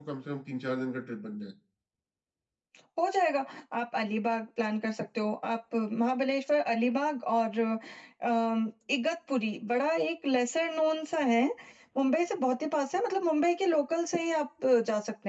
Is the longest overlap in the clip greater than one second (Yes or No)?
No